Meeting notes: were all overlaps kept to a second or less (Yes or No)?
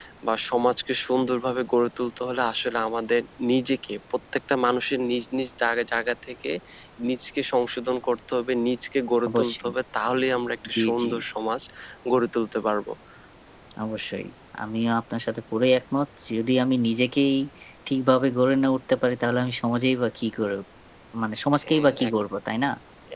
Yes